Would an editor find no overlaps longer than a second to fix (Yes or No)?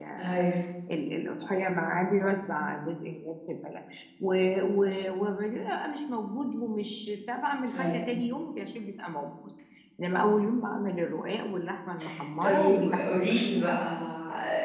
No